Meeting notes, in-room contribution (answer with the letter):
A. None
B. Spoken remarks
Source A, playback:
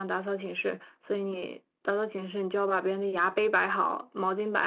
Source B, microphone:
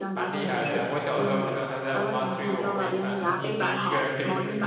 B